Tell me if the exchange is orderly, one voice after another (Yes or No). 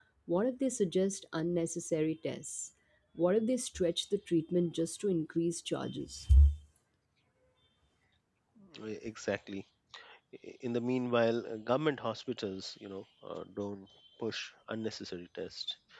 Yes